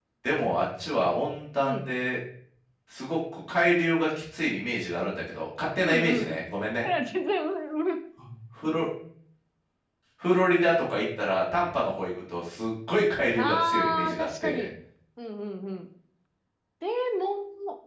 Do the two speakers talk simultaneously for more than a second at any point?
Yes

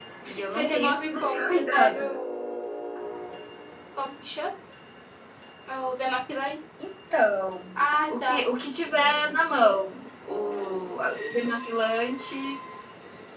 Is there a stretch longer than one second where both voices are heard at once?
Yes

